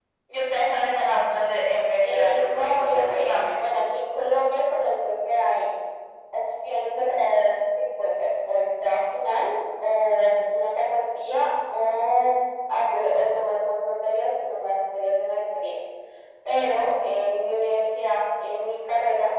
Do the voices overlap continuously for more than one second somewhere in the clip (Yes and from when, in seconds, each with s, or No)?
Yes, from 2.0 s